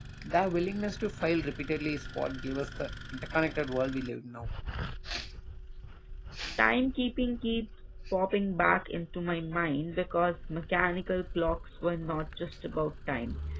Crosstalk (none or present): none